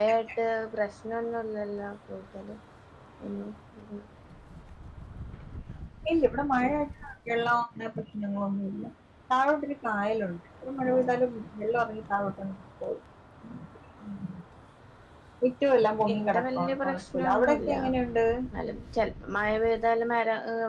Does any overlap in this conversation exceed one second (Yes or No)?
Yes